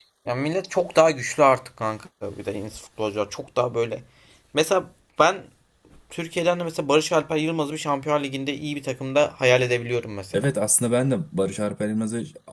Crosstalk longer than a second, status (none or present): none